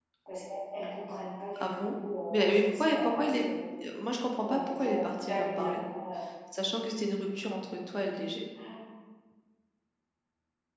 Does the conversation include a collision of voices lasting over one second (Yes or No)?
Yes